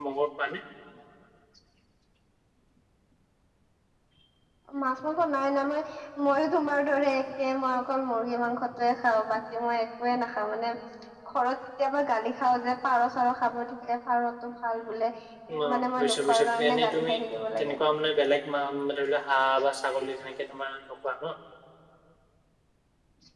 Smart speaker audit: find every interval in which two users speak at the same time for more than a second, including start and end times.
15.6-17.1

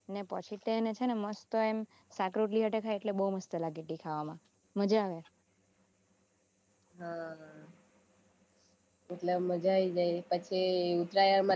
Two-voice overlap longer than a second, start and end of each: none

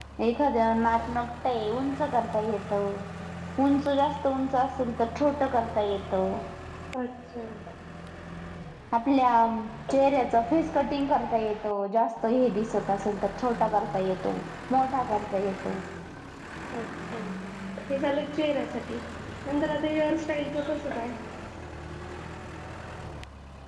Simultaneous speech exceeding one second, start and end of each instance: none

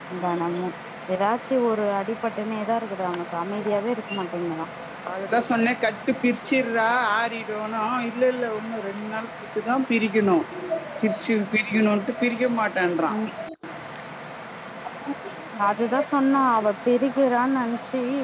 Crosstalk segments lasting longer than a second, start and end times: none

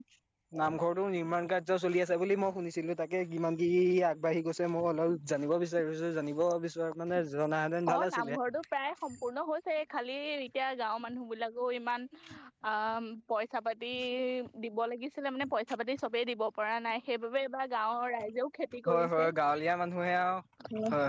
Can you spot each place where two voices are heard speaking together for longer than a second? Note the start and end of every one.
none

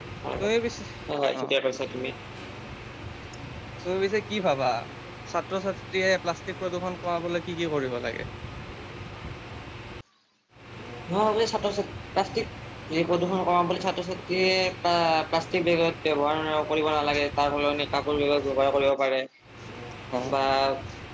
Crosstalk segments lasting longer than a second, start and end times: none

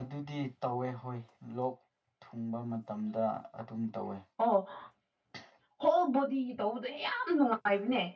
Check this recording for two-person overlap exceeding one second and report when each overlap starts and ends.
none

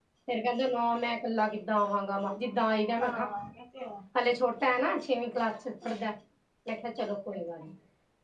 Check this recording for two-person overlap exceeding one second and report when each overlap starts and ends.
none

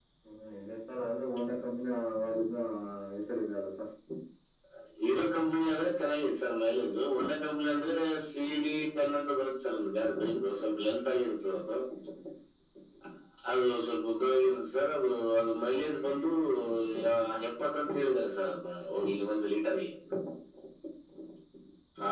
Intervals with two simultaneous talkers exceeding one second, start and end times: none

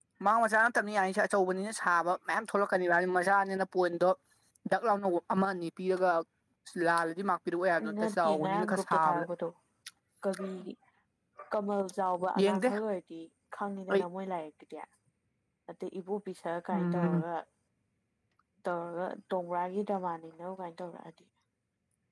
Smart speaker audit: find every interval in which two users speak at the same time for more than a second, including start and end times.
8.0-9.2

